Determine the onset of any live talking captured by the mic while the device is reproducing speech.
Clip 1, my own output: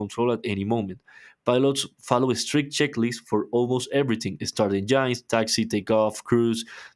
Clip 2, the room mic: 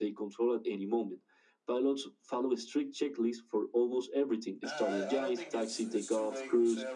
4.6 s

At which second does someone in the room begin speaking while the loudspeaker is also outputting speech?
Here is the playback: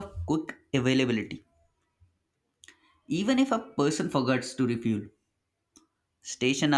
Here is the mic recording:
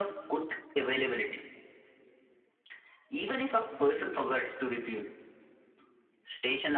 none

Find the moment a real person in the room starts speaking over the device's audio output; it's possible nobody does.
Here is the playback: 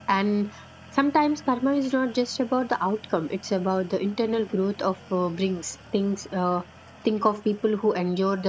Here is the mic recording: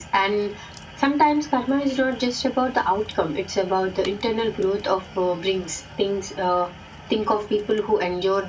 none

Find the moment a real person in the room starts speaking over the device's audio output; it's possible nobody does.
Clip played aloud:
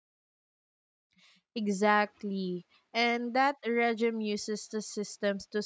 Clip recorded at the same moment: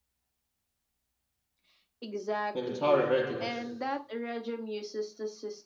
2.5 s

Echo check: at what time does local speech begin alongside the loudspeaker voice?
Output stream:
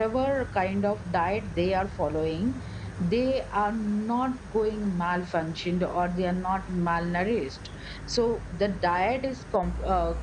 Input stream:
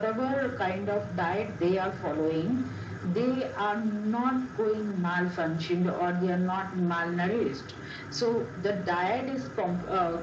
none

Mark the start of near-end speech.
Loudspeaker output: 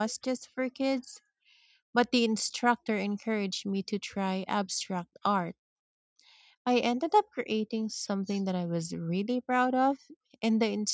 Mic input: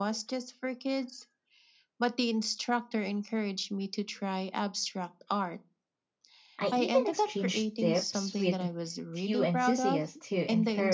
6.6 s

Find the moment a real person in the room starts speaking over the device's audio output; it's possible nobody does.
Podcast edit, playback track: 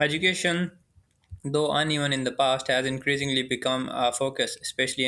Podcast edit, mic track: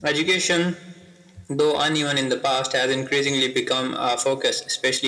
none

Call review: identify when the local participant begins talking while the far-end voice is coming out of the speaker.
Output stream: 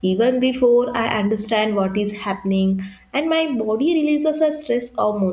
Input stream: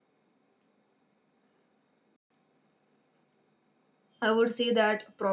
4.2 s

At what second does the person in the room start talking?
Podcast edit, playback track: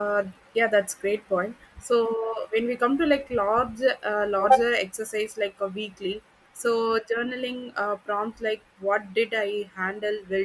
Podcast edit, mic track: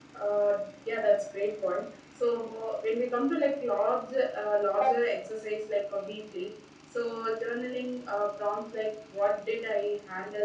none

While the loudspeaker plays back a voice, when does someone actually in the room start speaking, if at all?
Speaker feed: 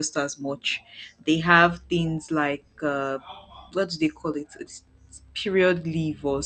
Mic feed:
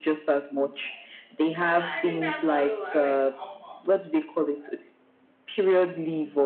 1.8 s

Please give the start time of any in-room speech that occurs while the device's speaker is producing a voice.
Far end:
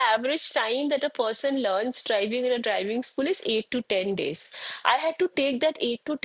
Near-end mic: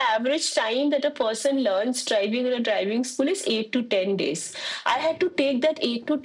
none

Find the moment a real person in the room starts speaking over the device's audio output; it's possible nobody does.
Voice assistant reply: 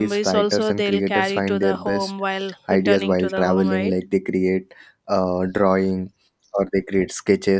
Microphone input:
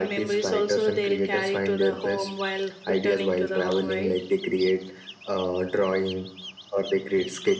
none

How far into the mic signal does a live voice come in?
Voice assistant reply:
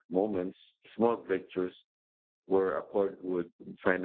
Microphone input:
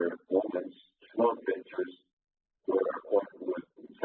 none

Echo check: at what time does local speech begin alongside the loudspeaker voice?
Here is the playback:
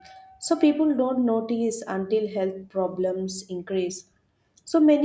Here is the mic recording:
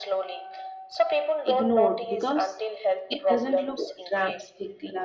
1.4 s

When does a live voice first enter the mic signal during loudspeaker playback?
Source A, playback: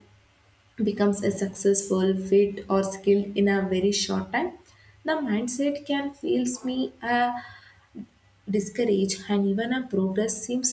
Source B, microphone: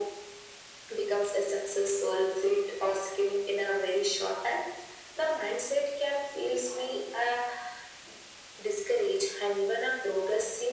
none

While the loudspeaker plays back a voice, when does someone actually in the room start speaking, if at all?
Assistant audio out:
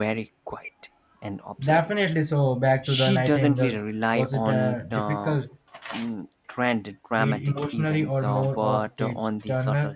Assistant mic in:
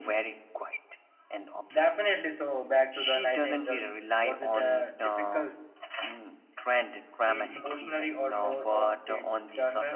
none

